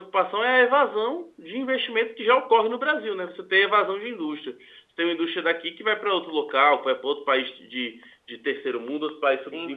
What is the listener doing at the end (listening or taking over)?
taking over